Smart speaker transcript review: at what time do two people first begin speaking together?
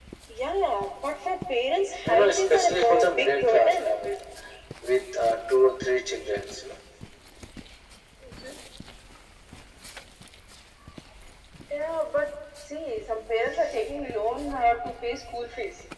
2 s

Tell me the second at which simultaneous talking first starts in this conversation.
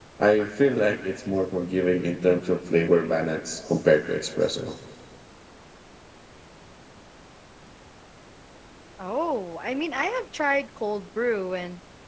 none

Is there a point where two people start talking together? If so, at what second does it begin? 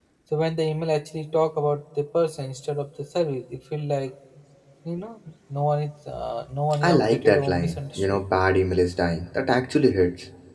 7 s

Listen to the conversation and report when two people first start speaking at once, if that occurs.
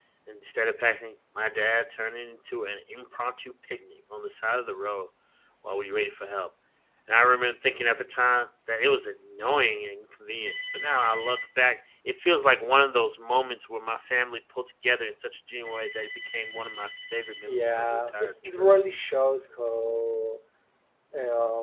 17 s

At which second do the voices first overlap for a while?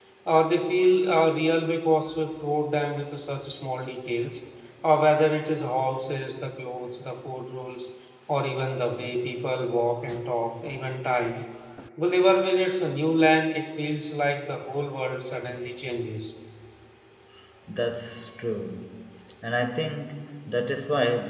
none

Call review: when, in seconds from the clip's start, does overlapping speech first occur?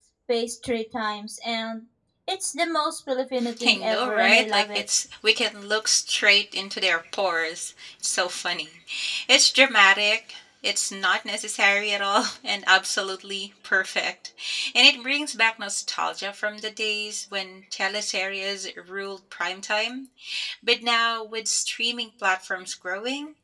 3 s

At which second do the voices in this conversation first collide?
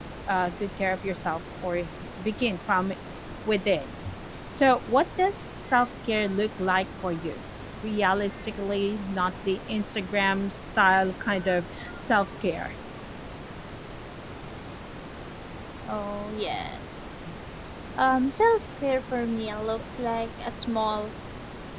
none

